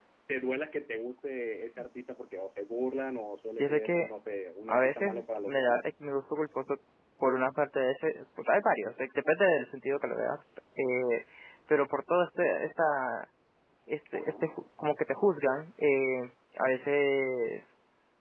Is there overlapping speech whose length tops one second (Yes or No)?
Yes